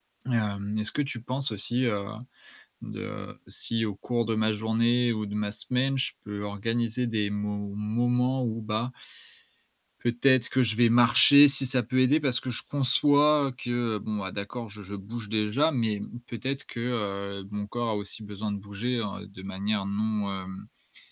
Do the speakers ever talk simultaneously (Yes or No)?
No